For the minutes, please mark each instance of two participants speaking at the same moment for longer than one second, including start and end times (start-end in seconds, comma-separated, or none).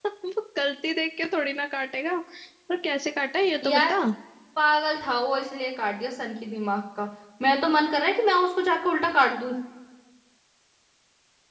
none